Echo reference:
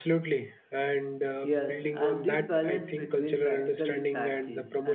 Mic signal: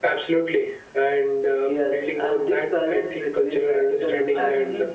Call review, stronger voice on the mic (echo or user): echo